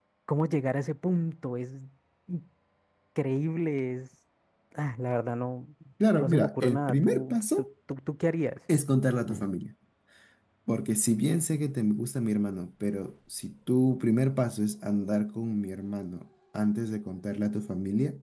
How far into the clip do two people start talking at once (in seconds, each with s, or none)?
6.2 s